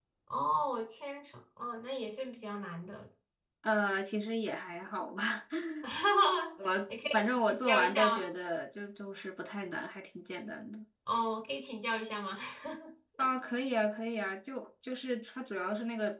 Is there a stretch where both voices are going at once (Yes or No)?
Yes